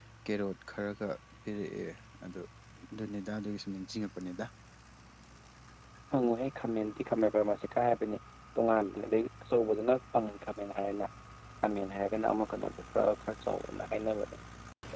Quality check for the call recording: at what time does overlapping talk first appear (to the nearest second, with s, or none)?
none